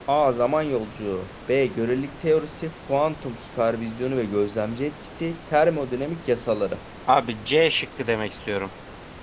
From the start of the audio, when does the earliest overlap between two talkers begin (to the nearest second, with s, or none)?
none